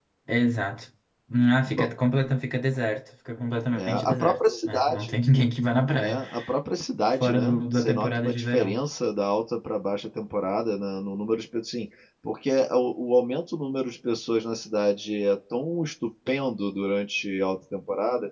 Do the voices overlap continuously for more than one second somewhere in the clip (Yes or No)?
Yes